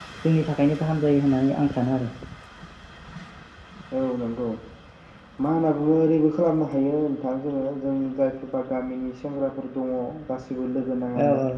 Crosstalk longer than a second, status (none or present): none